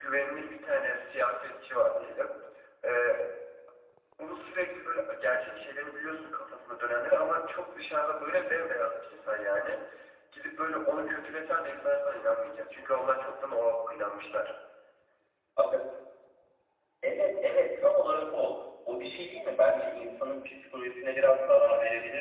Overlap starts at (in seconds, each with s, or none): none